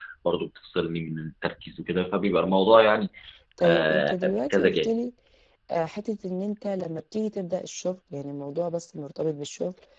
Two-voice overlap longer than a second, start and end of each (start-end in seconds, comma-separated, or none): 3.6-4.9